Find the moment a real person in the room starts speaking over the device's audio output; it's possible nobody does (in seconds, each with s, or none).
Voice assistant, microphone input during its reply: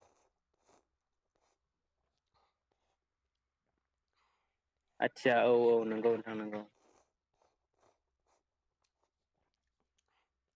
5.1 s